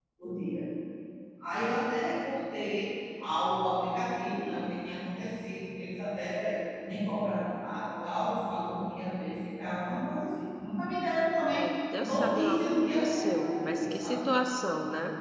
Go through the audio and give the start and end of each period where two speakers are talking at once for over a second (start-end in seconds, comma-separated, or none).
12.0-14.2